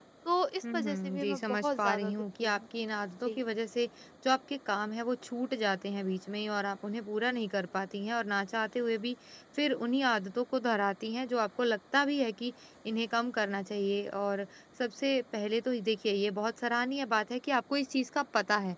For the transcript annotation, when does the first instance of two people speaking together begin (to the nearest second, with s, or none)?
1 s